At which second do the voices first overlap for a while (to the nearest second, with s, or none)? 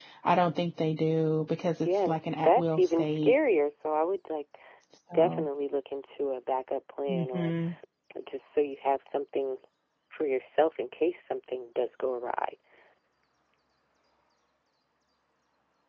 2 s